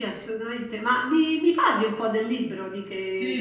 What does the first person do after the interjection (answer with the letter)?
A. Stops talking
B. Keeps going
A